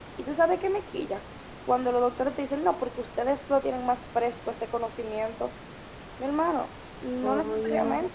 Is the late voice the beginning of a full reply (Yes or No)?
No